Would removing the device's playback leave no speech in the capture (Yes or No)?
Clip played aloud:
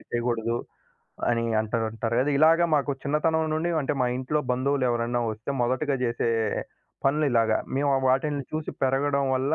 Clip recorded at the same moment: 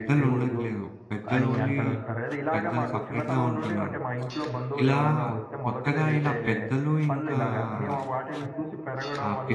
No